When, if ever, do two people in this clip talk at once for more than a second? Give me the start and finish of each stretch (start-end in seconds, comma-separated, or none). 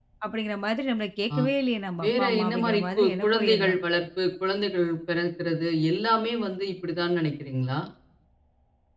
2.0-3.8